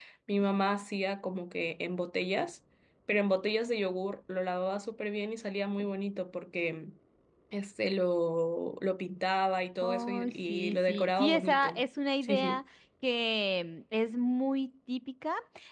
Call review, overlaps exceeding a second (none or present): present